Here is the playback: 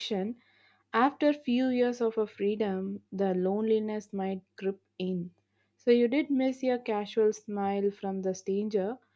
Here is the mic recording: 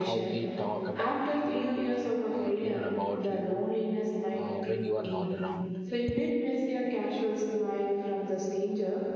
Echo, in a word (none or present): present